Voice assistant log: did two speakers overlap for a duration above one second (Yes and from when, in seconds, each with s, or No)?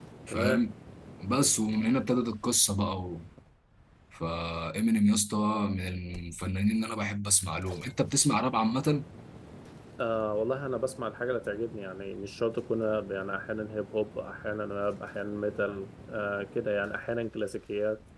No